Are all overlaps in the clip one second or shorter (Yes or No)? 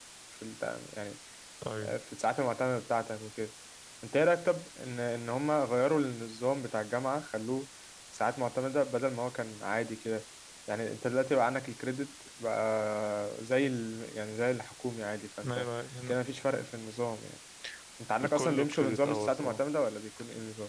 No